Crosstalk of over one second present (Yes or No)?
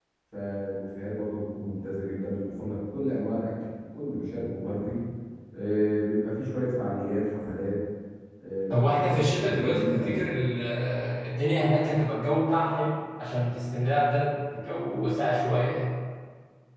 Yes